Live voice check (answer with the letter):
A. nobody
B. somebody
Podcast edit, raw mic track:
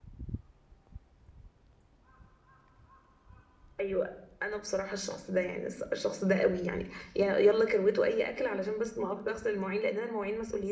B